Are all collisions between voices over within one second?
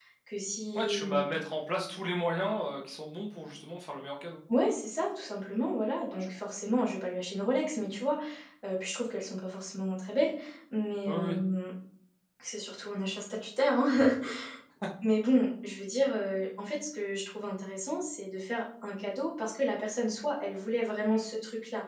Yes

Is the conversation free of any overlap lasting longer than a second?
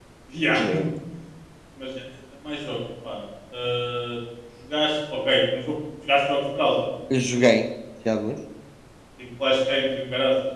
Yes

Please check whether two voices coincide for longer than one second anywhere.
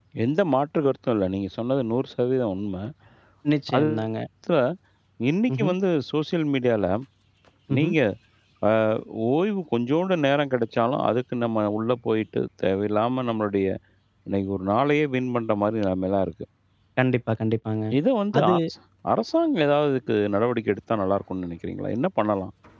No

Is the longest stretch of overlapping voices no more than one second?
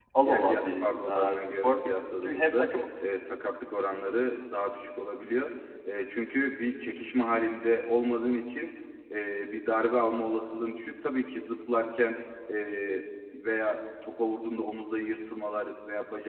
No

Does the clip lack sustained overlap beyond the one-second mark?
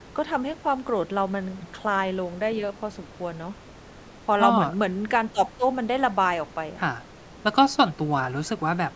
Yes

